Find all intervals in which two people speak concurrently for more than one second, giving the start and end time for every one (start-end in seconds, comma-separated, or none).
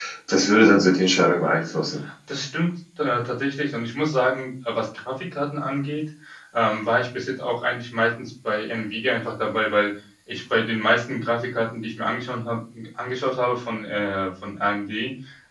none